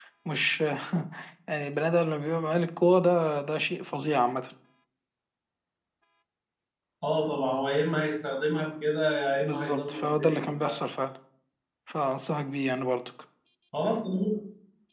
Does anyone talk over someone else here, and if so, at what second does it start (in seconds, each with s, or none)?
9.4 s